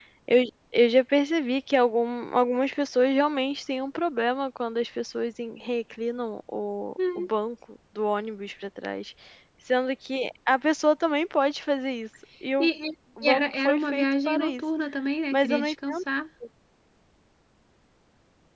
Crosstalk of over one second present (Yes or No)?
Yes